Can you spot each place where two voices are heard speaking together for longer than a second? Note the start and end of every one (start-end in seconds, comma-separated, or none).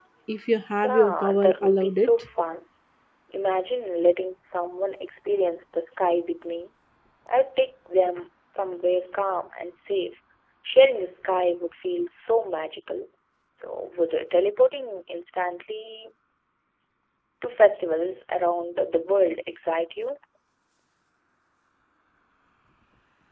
0.8-2.1